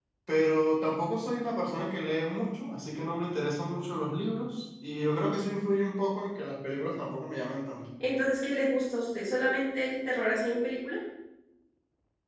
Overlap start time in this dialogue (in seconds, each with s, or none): none